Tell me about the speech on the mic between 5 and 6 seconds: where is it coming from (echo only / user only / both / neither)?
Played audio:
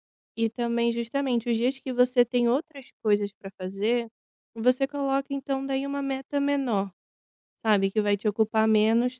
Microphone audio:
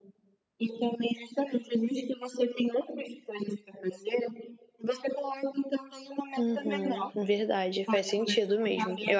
echo only